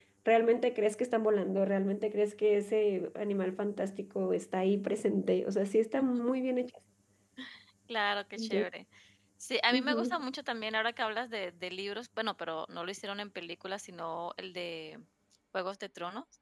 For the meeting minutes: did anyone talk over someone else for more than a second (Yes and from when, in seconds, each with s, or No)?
No